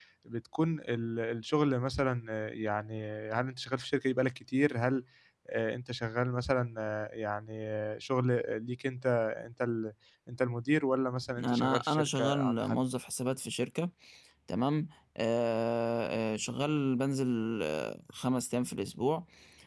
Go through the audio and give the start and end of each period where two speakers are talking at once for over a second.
11.4-12.8

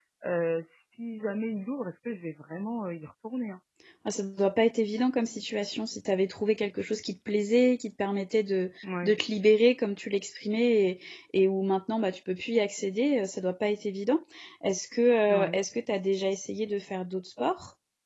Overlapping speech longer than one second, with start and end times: none

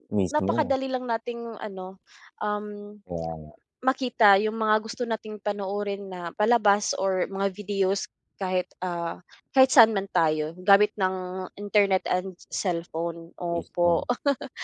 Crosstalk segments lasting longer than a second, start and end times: none

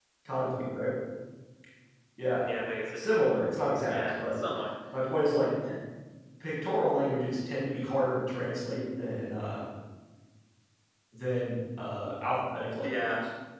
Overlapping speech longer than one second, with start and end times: none

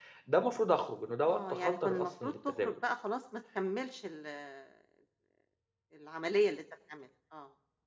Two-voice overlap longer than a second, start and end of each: 1.3-2.8

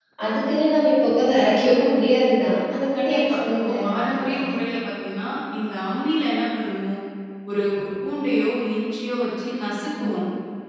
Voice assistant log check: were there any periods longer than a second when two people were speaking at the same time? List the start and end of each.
3.0-4.5

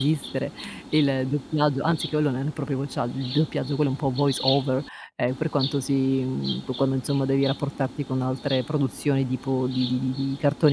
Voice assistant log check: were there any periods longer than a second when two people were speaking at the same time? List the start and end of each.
none

